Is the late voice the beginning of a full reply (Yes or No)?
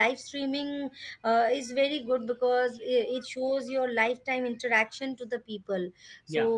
No